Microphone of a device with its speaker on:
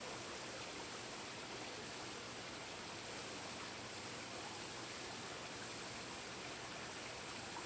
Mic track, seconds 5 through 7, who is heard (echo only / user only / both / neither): neither